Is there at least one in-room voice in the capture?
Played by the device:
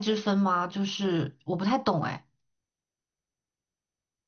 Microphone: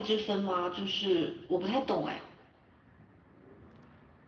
No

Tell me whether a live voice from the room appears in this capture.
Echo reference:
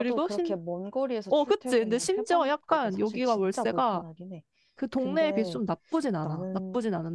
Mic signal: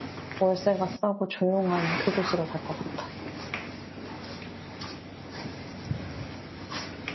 Yes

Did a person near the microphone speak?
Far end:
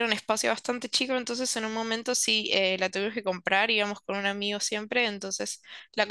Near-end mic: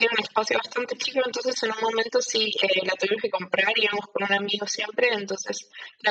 No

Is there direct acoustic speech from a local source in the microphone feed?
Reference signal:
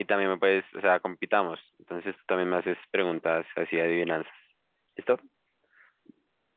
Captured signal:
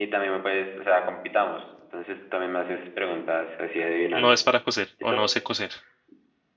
Yes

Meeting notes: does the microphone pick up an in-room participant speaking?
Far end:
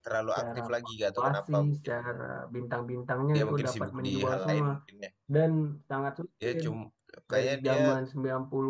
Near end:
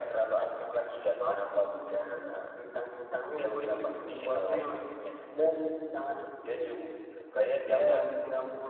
No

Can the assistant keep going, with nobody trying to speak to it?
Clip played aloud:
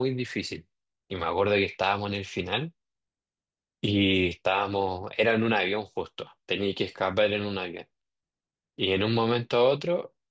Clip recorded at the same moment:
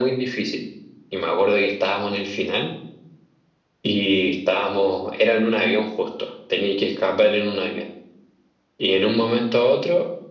Yes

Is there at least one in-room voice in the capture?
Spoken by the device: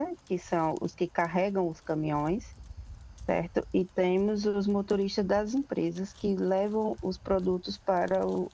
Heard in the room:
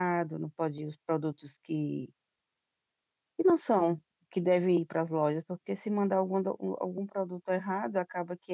Yes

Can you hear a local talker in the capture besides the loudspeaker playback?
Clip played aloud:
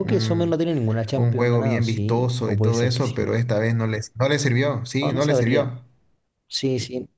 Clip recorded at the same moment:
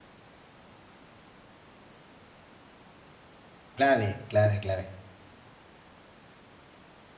Yes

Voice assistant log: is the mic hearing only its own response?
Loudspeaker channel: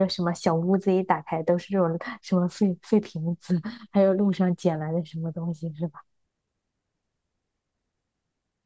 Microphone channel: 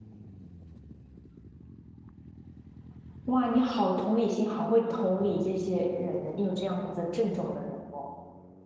No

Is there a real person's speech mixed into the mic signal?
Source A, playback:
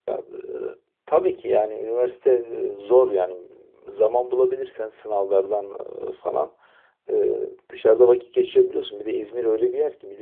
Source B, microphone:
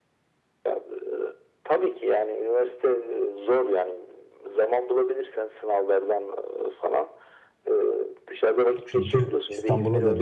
Yes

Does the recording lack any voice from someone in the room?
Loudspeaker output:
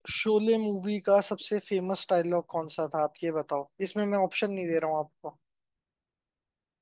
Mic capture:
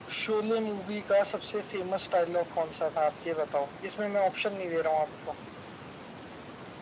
Yes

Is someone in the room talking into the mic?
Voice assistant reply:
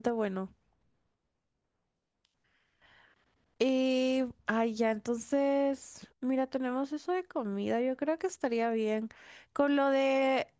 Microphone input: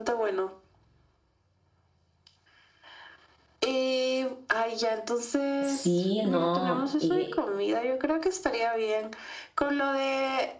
Yes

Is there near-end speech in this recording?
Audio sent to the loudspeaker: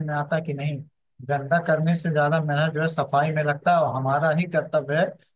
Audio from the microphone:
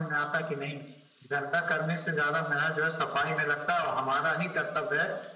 No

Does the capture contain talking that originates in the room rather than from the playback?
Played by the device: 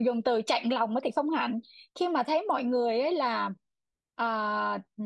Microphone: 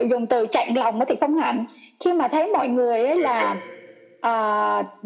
Yes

